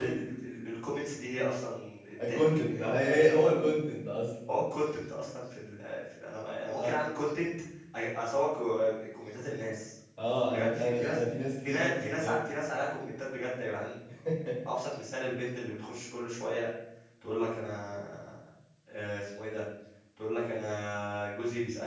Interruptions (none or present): present